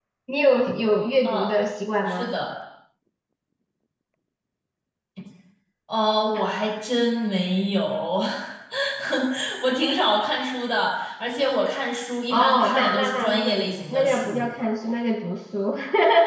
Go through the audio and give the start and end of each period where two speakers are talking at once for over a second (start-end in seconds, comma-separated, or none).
12.3-14.5